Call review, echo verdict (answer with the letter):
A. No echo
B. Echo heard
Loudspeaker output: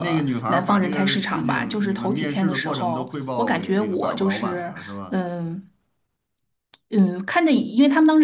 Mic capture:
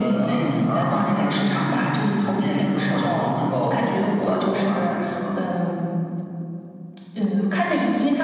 B